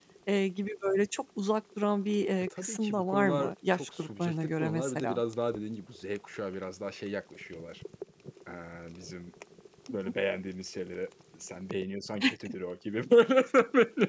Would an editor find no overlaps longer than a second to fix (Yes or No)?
No